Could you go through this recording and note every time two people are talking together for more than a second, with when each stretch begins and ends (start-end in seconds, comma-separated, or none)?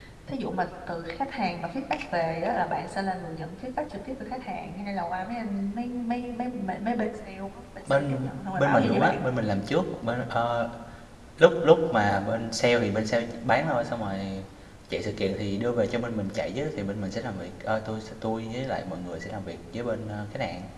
7.8-9.2